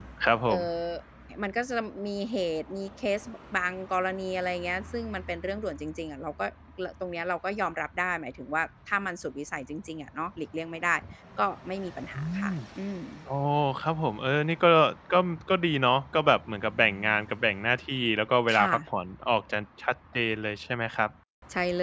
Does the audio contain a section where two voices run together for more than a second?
No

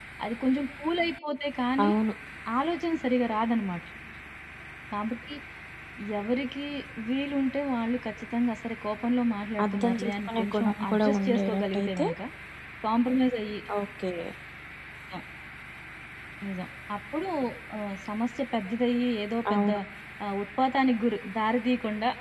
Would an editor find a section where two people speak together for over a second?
Yes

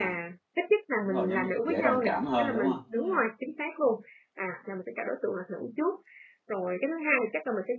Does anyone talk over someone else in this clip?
Yes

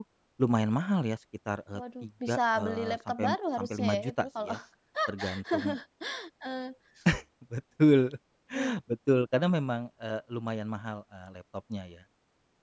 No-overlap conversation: No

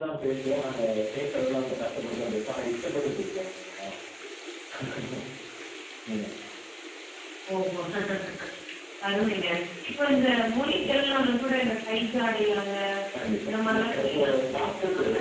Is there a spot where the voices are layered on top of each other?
Yes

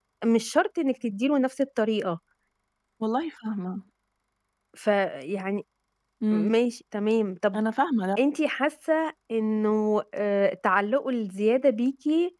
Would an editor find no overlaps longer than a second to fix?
Yes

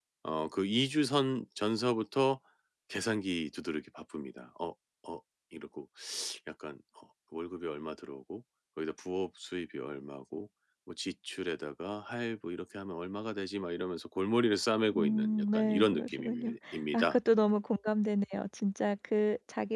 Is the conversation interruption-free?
No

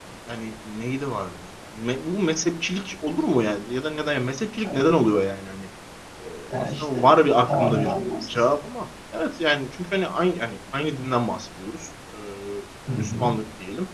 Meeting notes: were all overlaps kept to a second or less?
No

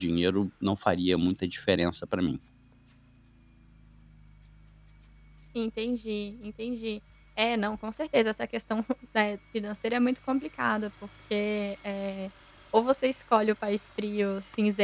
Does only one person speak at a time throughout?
Yes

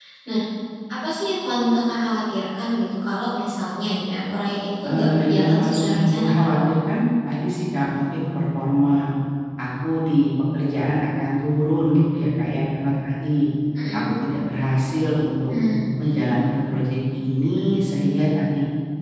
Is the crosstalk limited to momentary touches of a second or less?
No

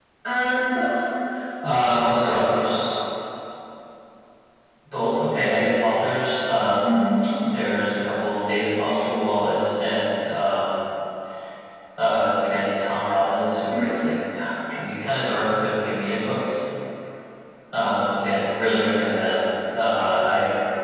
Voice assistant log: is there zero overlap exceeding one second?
Yes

